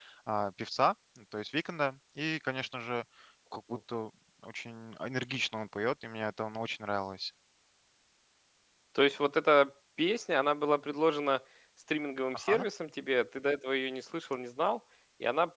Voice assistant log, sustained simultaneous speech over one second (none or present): none